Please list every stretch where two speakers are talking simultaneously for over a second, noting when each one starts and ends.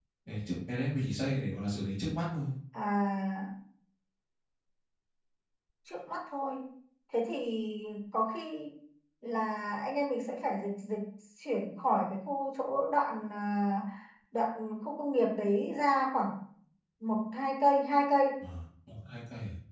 none

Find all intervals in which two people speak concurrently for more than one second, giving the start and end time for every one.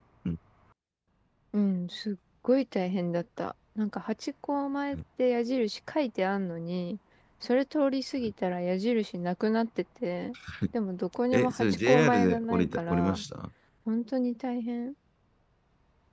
11.3-13.2

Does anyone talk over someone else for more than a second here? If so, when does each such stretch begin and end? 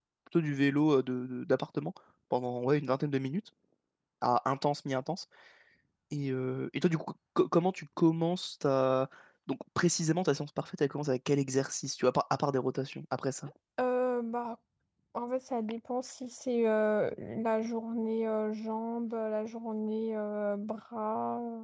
none

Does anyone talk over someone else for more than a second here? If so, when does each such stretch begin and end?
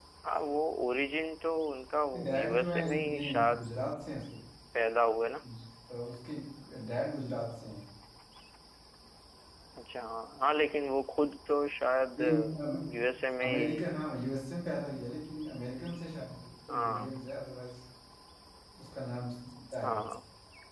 2.4-3.6

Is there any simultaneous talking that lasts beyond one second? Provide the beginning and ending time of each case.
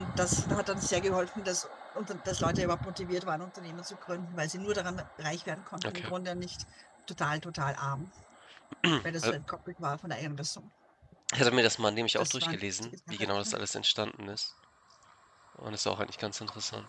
12.2-13.6

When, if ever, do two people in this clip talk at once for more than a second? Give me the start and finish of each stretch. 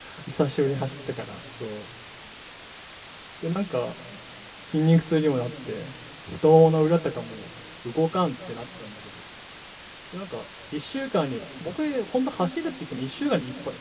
none

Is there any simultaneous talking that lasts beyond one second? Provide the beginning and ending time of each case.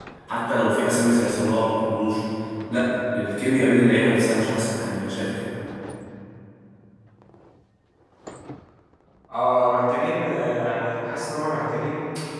none

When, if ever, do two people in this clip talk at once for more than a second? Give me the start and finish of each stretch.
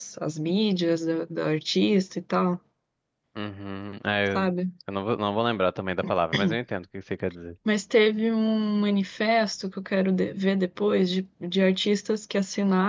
none

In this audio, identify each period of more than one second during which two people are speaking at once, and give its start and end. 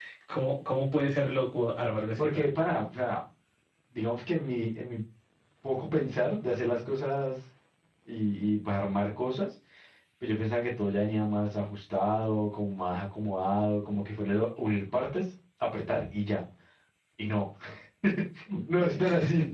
none

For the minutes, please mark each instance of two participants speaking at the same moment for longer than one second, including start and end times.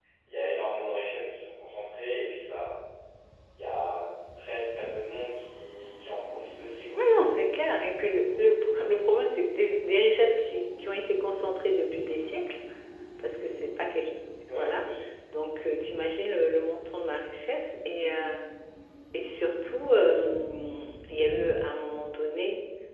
none

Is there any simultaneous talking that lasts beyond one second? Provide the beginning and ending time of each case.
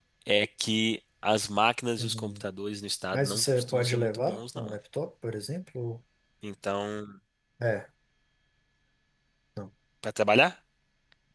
3.1-4.8

